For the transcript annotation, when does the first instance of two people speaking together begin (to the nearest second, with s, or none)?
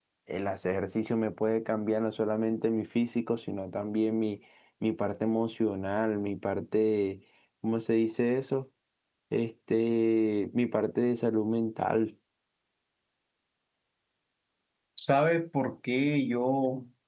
none